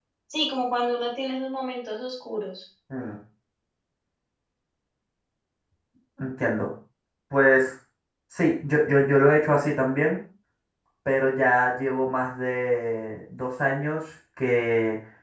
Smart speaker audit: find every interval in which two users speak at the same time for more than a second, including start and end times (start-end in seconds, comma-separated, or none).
none